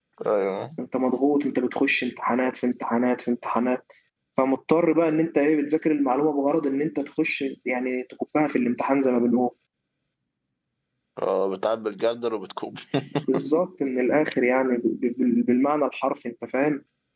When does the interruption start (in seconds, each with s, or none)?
none